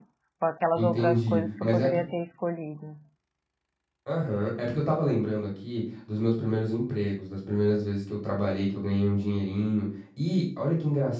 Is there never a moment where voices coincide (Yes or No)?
No